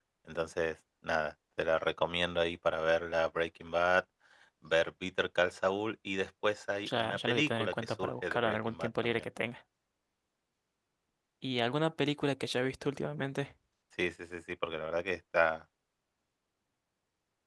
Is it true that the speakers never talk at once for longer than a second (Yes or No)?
No